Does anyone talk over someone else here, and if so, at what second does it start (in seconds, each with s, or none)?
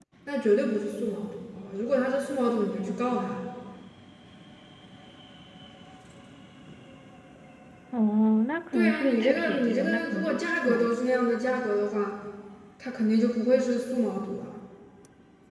8.7 s